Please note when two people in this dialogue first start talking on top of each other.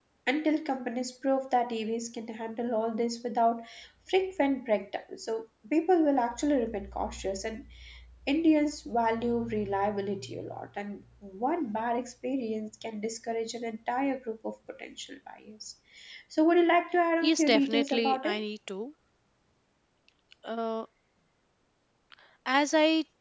17.2 s

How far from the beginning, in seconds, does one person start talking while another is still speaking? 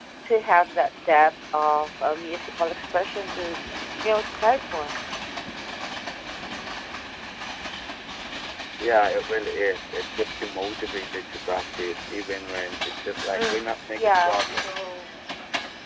13.3 s

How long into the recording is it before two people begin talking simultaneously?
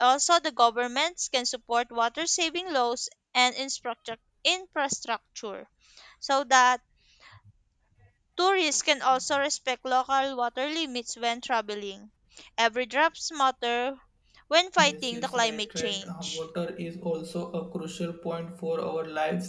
14.8 s

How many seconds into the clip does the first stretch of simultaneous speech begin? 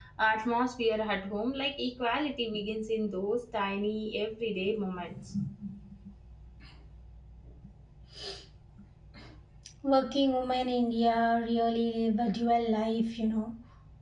none

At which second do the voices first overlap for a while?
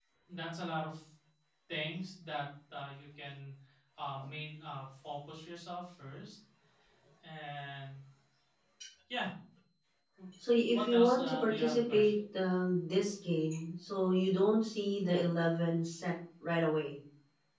10.7 s

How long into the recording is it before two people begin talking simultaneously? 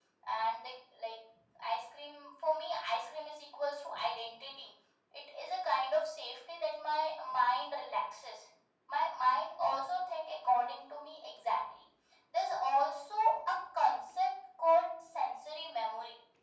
none

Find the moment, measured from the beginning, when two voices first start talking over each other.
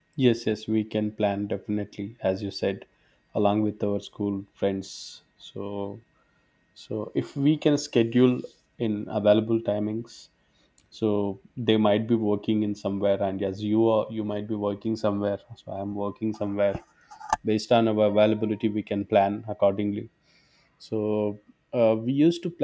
none

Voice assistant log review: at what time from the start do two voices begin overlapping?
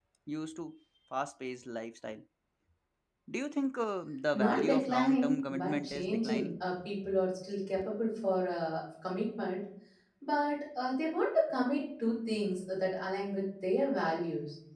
4.3 s

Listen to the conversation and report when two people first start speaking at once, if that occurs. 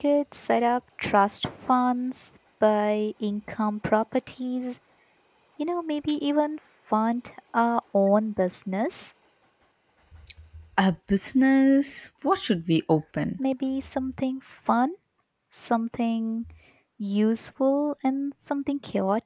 none

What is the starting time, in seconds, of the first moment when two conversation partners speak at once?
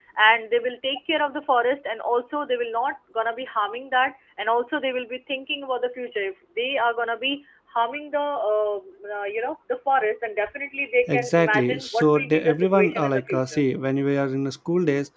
11.1 s

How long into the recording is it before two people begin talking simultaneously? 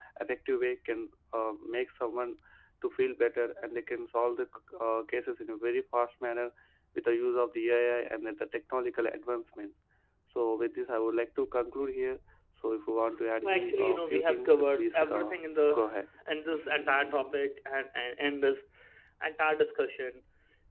13.4 s

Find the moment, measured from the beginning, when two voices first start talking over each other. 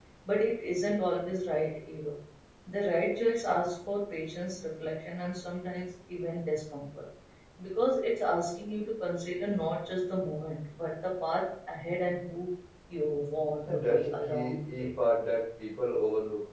13.7 s

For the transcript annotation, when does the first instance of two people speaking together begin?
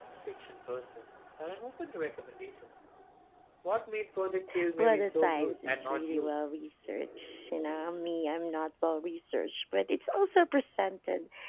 4.8 s

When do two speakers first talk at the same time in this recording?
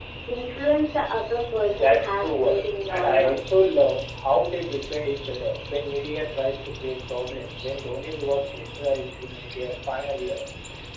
1.7 s

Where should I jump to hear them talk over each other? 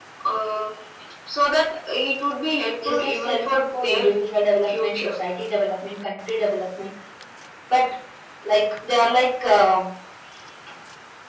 2.8 s

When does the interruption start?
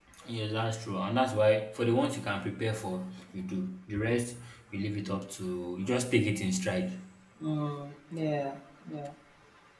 none

